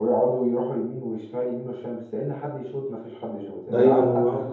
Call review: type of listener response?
taking over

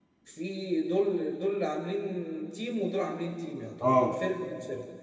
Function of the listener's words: listening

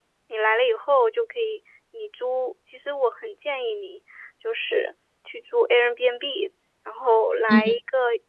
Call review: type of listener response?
listening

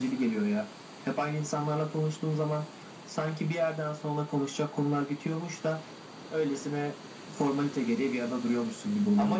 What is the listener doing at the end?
taking over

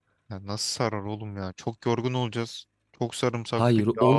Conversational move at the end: taking over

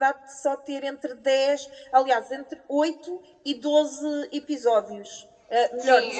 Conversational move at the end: taking over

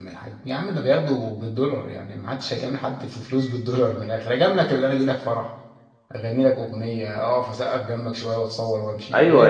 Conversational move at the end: taking over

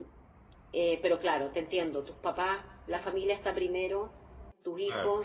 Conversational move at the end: listening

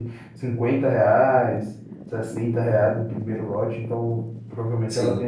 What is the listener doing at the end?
taking over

